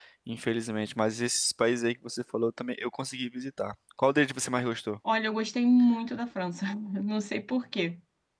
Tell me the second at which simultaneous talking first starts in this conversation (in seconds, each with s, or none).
none